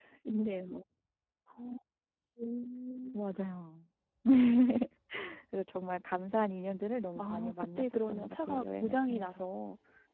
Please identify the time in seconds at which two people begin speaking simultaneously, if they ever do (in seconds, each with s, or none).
7.2 s